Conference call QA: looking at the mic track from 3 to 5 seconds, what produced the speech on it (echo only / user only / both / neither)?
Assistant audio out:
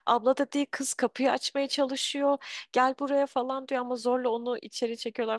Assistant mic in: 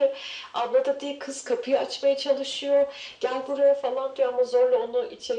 echo only